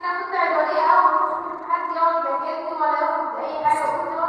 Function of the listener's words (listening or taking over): listening